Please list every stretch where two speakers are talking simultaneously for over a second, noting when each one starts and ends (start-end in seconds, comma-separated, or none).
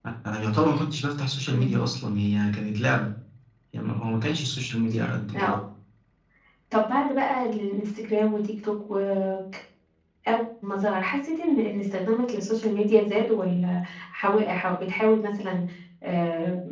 none